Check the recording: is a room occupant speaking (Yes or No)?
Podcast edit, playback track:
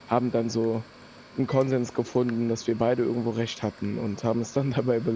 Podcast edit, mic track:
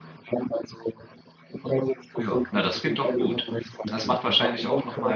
Yes